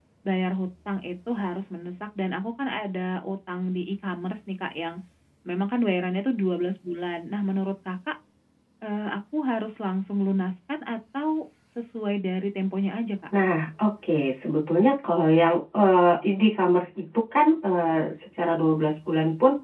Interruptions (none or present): none